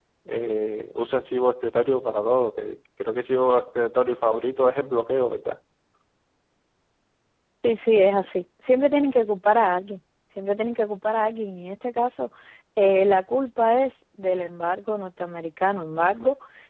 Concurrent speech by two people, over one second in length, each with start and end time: none

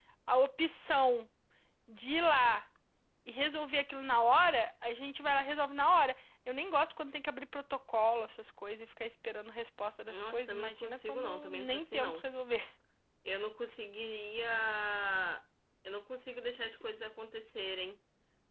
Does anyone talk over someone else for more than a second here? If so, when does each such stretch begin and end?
10.1-12.2

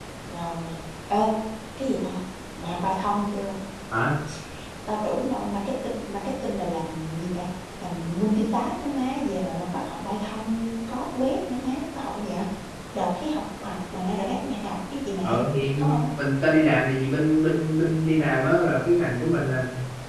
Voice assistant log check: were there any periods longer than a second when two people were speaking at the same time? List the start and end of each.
none

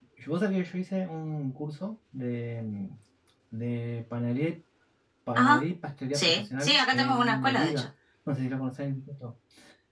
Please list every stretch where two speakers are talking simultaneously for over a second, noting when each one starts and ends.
6.1-7.9

